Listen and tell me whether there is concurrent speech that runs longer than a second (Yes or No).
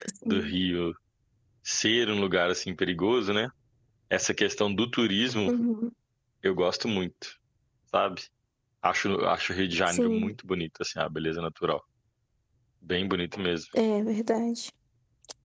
No